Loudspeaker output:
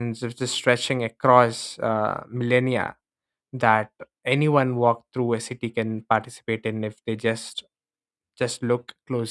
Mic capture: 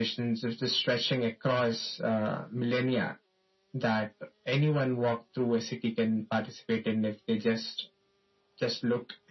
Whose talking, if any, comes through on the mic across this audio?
echo only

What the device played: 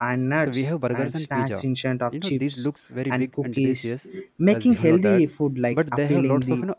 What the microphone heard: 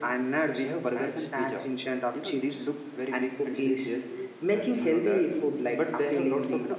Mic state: echo only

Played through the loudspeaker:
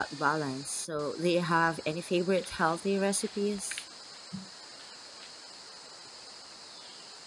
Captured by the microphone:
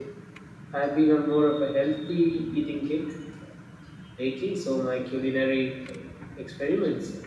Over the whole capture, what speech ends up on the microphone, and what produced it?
user only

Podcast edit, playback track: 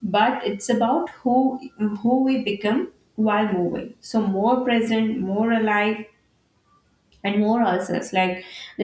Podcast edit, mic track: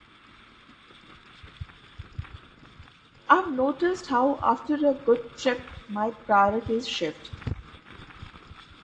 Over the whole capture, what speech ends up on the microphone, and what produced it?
user only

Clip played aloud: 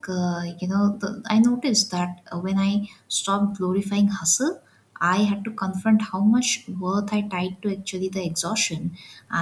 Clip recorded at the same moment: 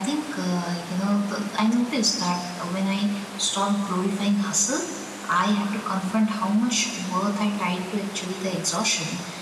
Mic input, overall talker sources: echo only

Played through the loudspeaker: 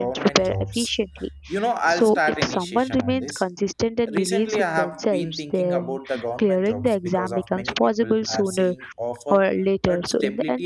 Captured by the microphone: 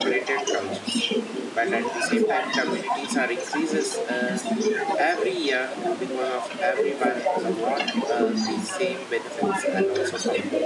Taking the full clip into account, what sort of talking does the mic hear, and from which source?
both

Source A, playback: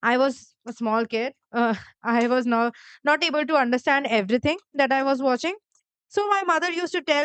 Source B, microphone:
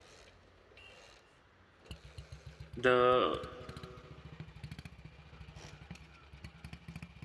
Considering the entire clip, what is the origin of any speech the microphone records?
user only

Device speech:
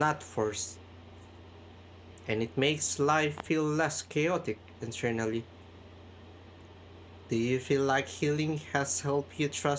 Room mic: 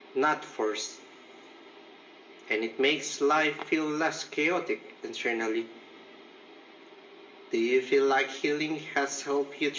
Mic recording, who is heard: echo only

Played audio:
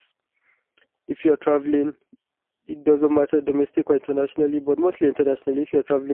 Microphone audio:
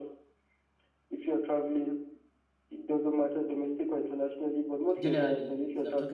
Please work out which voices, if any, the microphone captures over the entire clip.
both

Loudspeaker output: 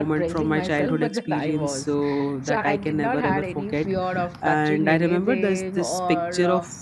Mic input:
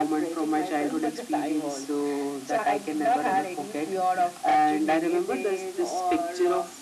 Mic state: echo only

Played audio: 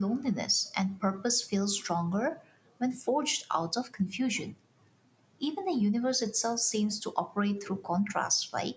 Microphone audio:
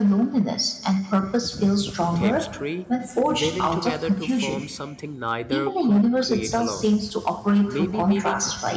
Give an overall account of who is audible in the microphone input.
both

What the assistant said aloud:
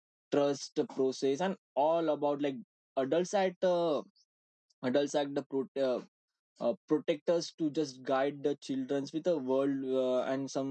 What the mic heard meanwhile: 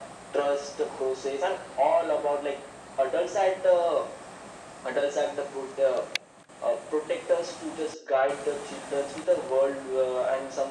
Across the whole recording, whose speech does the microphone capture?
echo only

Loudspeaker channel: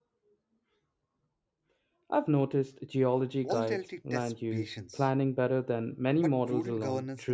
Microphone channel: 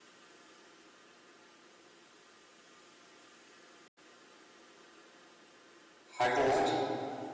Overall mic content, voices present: user only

